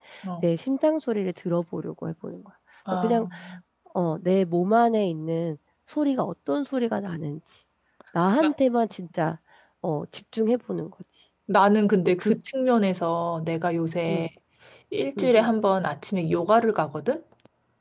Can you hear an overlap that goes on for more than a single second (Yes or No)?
No